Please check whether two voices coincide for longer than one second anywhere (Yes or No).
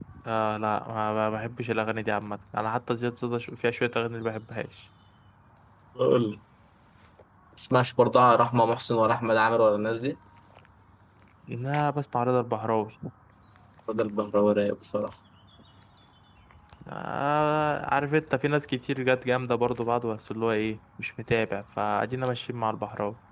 No